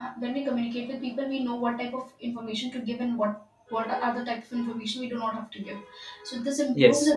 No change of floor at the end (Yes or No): Yes